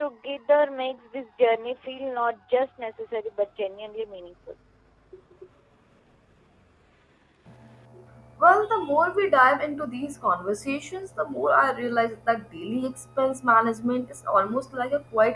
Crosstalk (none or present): none